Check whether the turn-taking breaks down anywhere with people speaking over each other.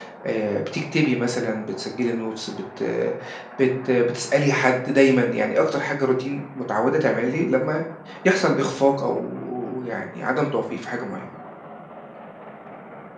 No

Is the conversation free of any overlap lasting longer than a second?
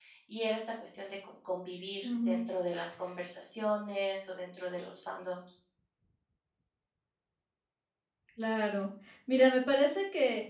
Yes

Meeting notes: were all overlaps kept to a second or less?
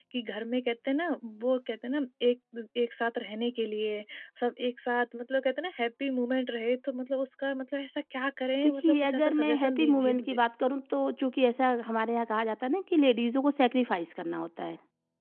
No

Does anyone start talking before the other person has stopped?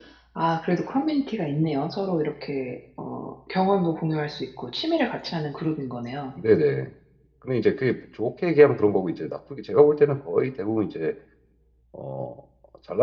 No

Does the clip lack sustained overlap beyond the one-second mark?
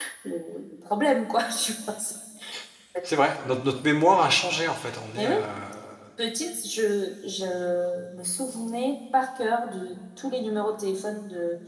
Yes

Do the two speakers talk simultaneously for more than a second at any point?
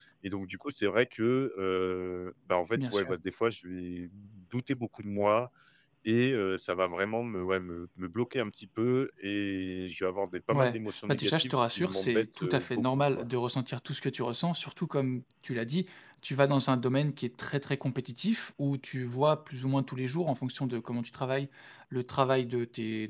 Yes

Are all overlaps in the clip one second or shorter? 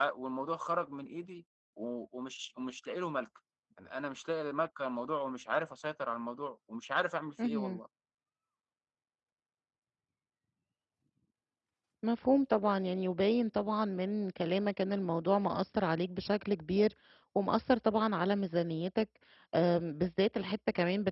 Yes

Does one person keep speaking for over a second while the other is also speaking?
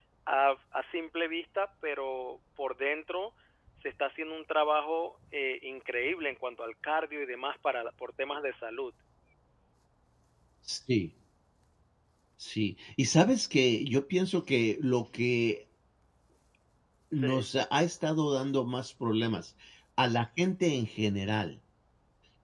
No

